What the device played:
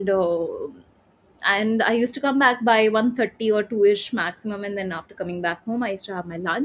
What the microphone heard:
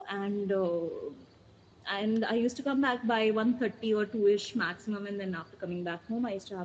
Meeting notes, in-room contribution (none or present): none